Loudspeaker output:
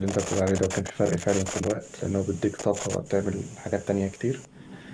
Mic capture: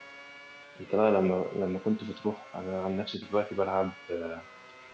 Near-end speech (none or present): present